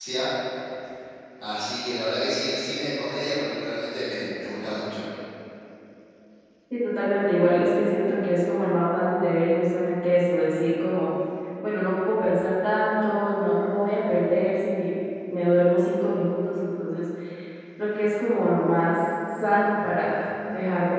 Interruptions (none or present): none